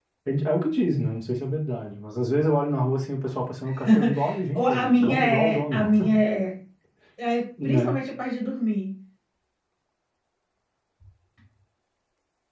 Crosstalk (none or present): present